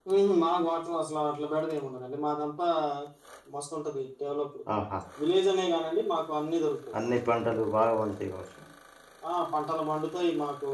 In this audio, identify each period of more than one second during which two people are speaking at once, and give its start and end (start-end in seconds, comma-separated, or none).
none